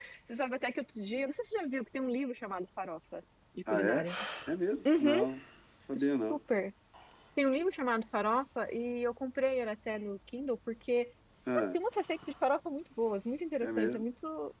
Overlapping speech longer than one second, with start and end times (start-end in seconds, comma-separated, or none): none